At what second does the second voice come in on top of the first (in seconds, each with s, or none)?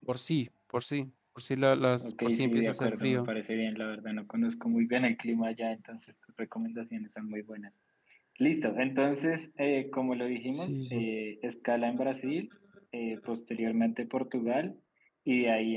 2.0 s